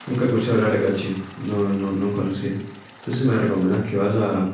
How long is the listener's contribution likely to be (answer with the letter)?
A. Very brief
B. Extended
A